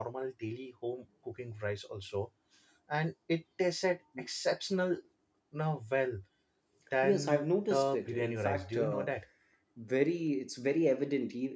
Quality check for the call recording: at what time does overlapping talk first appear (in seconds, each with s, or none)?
7.0 s